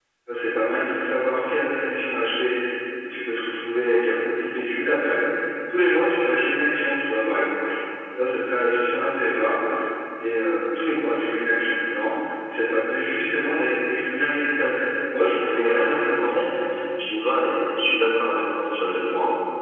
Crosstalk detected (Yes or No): Yes